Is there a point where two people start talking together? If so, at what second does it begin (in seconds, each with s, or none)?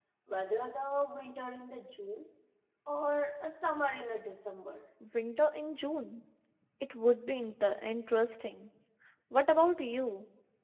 none